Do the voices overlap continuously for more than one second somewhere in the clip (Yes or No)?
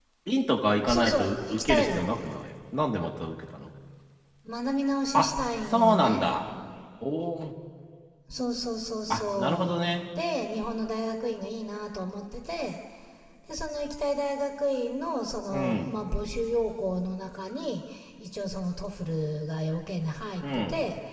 Yes